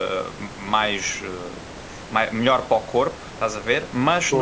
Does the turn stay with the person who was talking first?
Yes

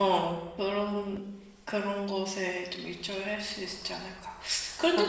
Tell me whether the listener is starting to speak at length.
No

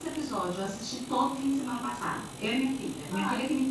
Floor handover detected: Yes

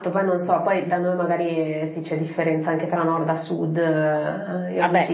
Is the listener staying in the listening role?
No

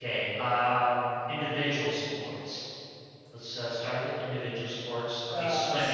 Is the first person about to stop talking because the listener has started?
Yes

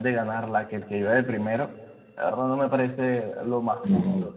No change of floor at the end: No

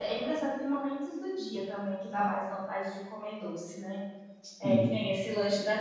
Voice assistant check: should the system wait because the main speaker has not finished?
Yes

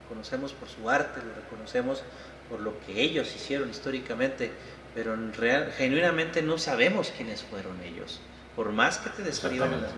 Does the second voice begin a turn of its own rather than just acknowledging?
No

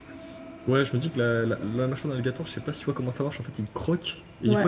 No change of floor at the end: Yes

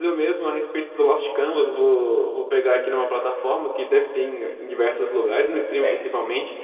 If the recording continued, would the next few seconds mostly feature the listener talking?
No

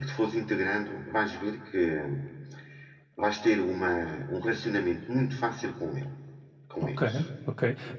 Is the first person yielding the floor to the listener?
Yes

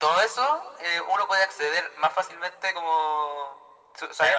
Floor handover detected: Yes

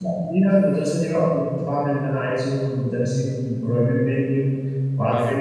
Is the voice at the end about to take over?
No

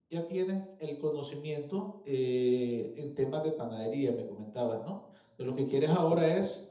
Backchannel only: Yes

